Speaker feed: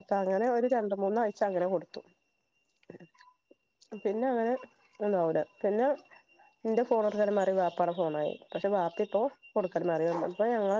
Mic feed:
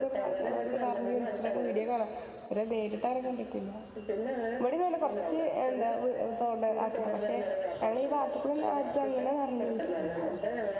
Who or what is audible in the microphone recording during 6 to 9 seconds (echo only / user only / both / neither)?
both